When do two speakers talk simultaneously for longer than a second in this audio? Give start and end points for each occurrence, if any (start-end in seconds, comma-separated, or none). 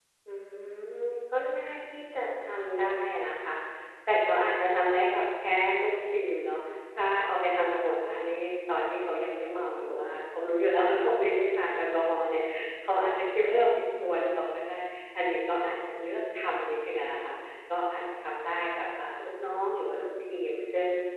none